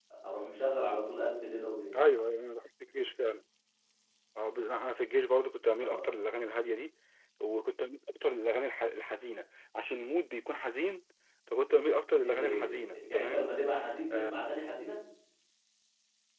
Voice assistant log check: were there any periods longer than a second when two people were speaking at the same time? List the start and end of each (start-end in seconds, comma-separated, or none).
12.2-13.5